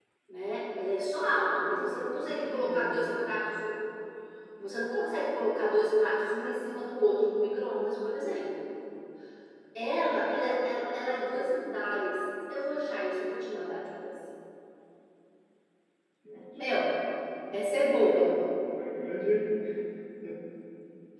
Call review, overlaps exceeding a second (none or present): present